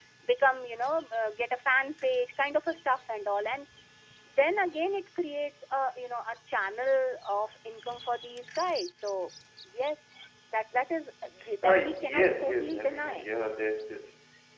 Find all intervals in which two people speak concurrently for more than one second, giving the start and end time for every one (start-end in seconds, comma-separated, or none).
11.6-13.2